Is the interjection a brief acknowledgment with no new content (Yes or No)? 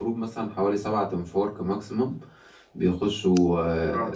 Yes